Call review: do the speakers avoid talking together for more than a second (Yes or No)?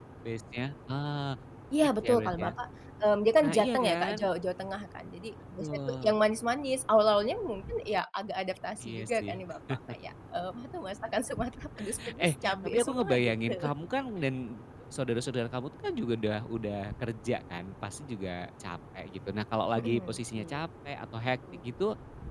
No